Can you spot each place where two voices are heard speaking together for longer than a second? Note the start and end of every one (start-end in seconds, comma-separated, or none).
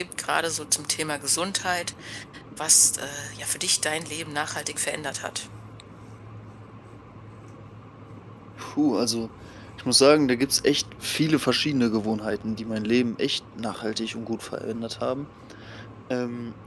none